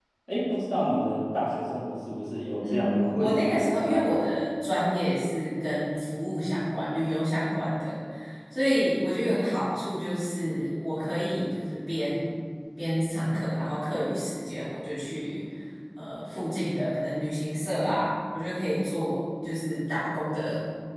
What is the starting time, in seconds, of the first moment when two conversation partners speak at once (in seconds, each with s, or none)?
2.6 s